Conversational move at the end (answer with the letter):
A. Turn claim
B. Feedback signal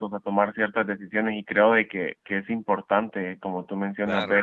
B